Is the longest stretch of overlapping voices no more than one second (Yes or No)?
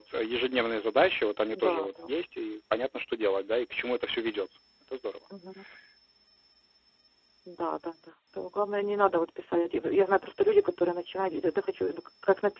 Yes